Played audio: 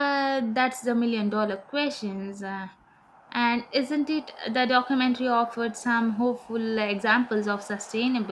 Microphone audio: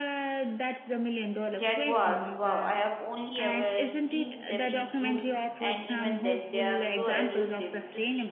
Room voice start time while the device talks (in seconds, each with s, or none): 1.6 s